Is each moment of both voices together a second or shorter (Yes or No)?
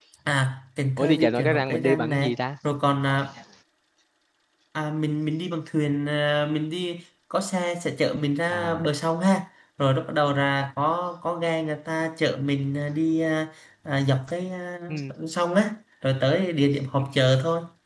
No